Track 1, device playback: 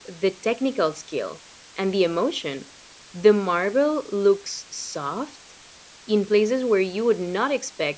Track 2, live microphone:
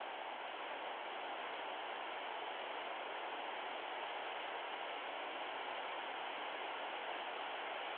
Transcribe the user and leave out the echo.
none

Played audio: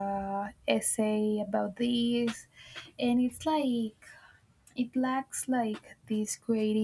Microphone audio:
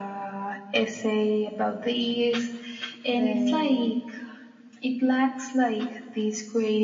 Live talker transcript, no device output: the

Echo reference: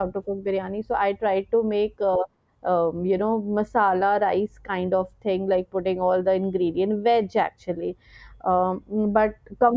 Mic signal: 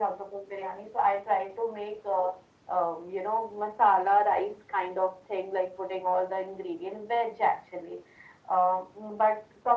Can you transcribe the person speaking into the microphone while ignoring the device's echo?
none

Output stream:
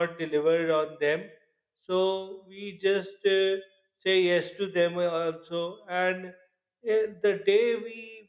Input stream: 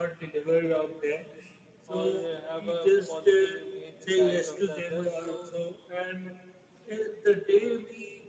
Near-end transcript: or have a positive image in the eyes of the other. So

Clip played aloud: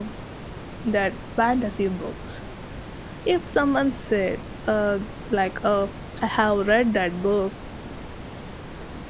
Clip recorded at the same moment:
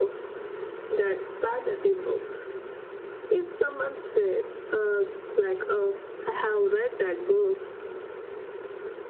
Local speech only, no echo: none

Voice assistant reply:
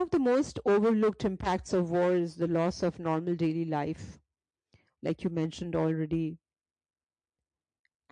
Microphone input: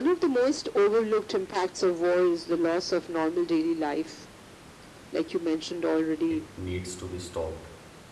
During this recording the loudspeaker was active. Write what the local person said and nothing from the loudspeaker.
it needs to be stopped,

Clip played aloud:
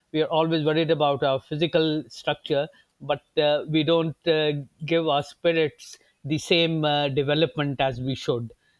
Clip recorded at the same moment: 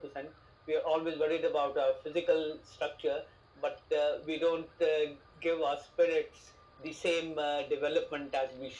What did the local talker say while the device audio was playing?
none

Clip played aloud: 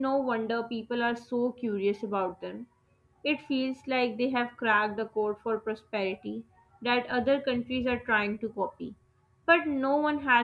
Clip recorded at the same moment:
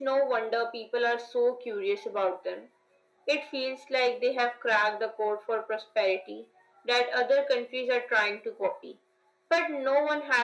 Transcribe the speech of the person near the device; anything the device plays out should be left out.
none

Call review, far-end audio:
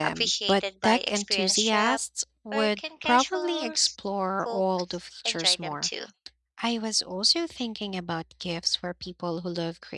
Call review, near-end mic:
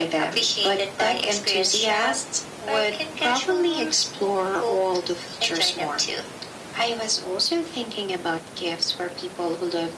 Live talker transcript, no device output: none

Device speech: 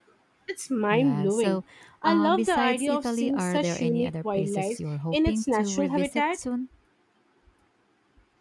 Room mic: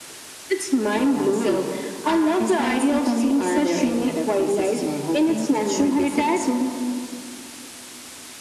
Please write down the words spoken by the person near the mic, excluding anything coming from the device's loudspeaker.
none

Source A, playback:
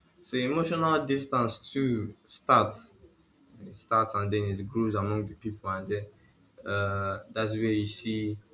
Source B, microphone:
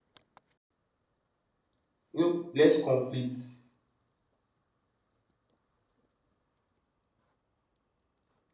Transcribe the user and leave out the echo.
You know, less conflict,

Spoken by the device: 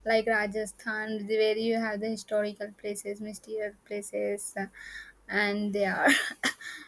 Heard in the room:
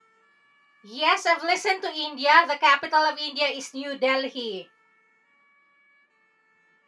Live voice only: Yes, I've listened to India. The capital of India is New Delhi.

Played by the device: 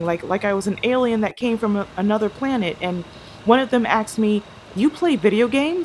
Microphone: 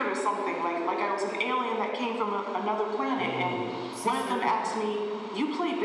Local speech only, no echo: or sister,

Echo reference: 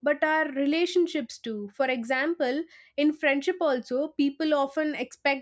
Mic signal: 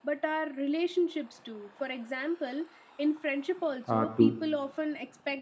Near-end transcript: uh, too.

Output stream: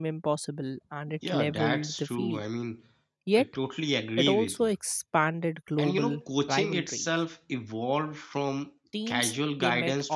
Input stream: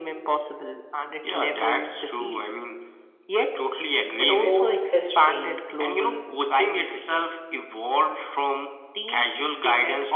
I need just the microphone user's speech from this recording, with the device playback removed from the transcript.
sport history

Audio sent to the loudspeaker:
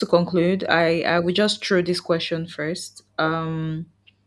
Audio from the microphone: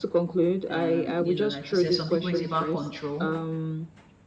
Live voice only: Um, you know, like you said, some people it's about control.

